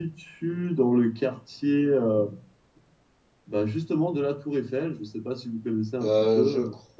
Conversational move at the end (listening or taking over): taking over